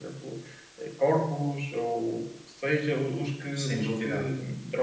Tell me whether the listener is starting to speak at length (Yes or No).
No